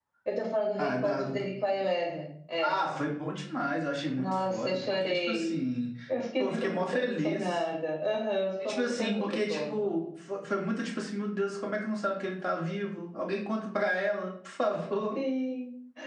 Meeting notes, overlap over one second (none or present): present